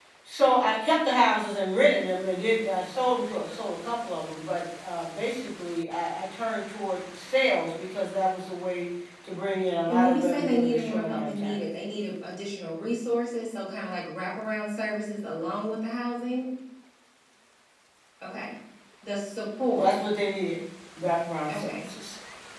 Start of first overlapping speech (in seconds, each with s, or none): 9.9 s